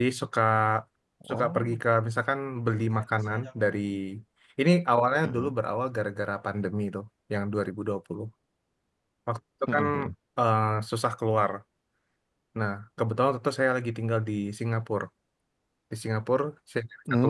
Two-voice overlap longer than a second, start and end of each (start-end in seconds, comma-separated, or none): none